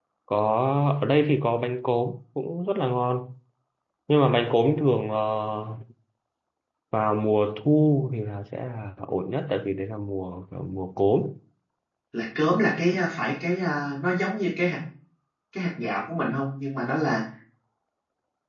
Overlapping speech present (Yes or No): No